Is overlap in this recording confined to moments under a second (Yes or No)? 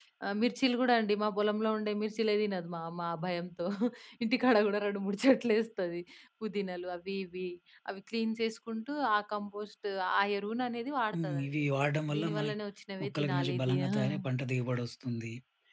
No